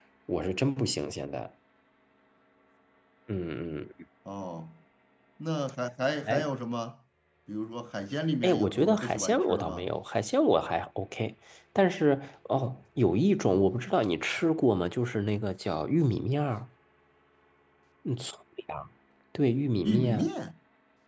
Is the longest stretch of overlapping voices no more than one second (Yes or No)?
No